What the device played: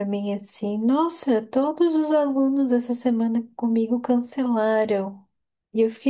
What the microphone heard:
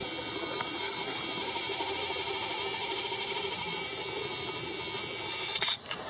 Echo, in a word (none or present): none